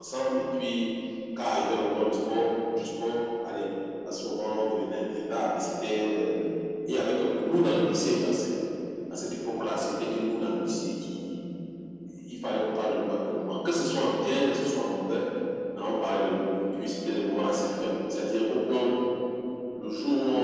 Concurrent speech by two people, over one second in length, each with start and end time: none

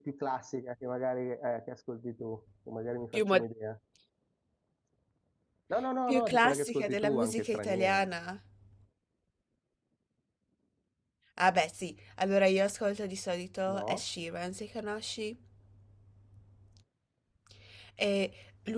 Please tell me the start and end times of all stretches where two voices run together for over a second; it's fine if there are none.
6.1-8.1

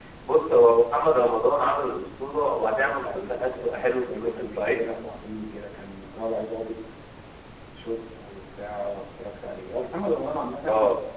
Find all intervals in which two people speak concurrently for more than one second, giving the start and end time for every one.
2.8-4.8

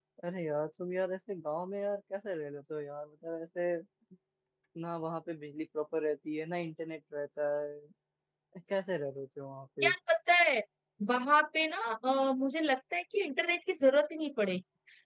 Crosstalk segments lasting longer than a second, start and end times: none

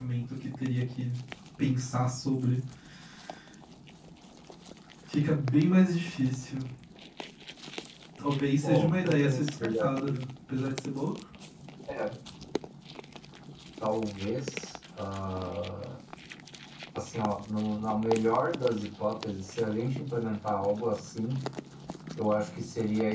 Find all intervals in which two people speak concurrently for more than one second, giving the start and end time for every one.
8.6-10.1

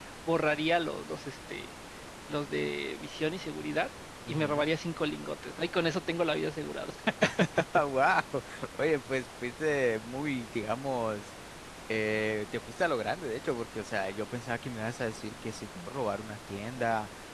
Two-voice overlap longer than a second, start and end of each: none

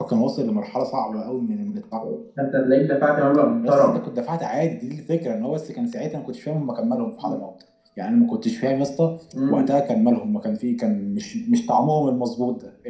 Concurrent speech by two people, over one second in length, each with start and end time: none

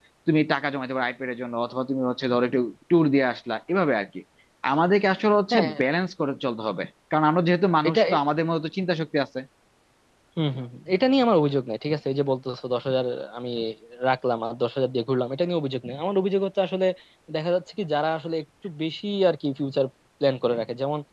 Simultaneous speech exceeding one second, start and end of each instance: none

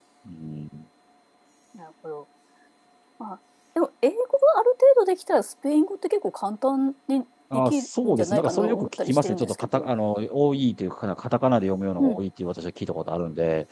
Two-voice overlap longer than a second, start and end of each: 7.5-9.9

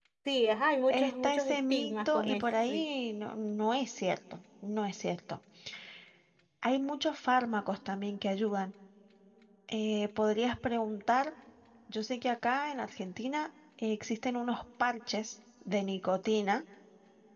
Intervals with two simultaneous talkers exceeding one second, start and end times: 0.9-2.8

